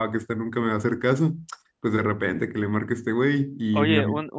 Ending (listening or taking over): taking over